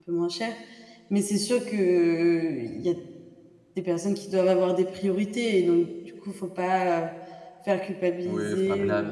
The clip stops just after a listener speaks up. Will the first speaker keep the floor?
No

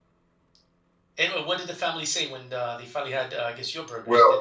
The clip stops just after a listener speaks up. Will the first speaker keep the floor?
No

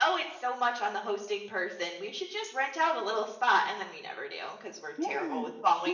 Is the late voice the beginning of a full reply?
Yes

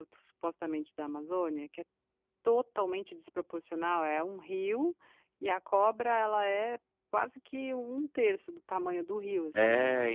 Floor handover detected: Yes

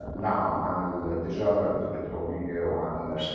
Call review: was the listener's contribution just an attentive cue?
Yes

